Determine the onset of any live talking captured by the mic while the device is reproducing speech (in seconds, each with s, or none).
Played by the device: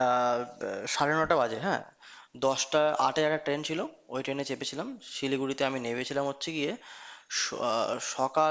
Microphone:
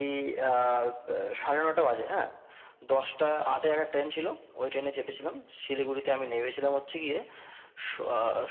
none